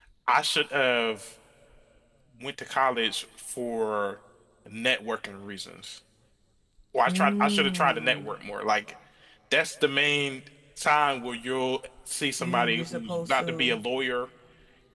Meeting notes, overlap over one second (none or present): present